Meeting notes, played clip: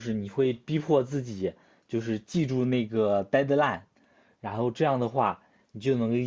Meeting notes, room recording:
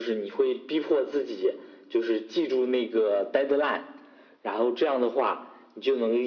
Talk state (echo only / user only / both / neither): echo only